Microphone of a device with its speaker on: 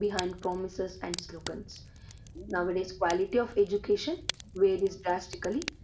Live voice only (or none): none